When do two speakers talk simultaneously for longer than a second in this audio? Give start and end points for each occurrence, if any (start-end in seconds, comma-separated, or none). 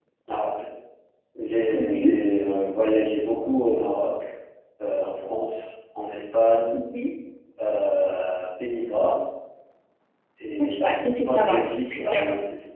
10.6-12.2